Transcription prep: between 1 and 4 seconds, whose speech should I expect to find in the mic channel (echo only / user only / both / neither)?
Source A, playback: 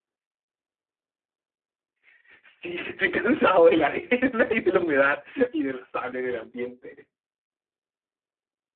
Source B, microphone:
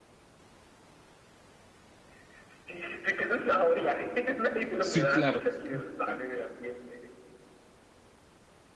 echo only